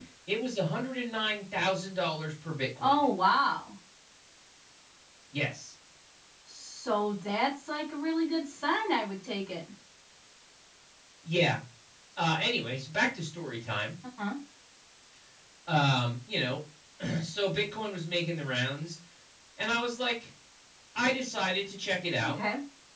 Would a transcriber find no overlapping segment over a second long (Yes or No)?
Yes